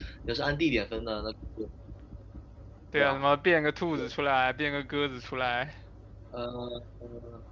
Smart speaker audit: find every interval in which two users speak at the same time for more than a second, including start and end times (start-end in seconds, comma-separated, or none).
none